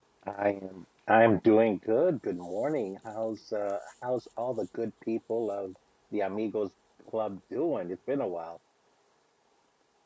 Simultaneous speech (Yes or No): No